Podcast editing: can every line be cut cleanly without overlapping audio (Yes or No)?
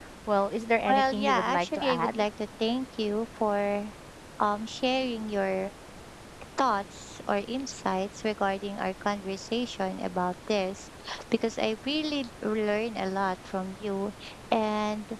No